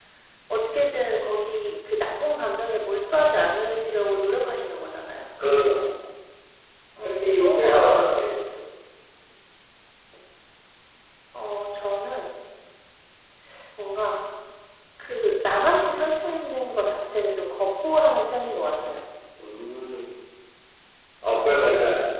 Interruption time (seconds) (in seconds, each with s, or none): 7.0 s